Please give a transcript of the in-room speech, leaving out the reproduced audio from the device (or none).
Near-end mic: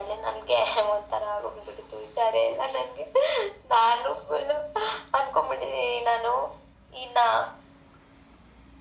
none